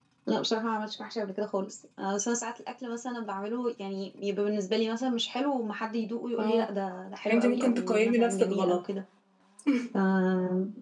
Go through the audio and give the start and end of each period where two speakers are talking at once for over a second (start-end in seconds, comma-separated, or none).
7.3-8.8